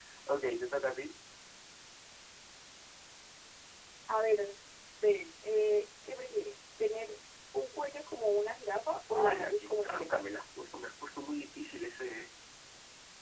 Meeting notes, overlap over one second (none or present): present